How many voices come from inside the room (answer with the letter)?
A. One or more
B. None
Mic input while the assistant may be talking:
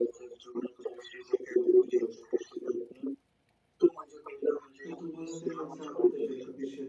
A